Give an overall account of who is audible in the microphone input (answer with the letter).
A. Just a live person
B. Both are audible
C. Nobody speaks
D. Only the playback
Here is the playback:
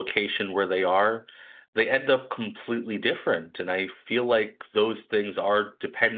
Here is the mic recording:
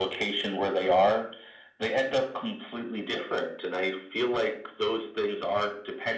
D